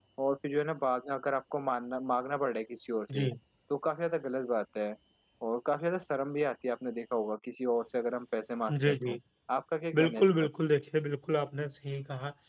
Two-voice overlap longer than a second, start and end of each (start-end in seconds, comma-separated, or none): none